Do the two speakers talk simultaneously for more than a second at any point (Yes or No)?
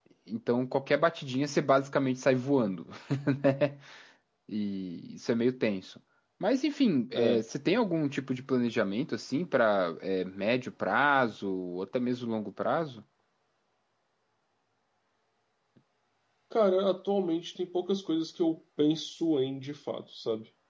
No